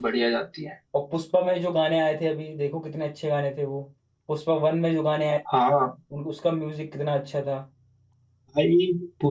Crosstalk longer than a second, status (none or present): none